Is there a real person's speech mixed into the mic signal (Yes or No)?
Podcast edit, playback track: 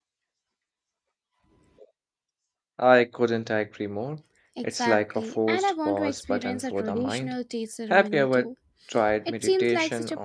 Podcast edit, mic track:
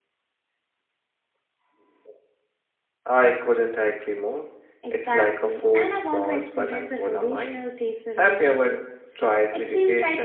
No